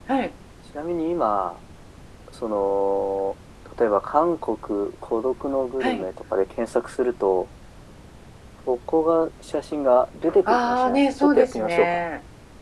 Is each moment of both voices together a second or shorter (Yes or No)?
No